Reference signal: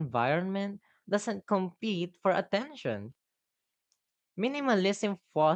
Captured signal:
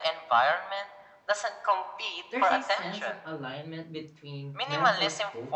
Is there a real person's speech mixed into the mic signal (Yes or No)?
Yes